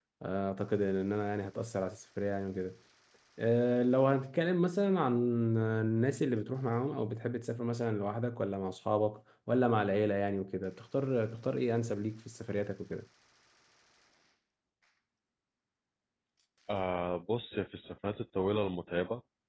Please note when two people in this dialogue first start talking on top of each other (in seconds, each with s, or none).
none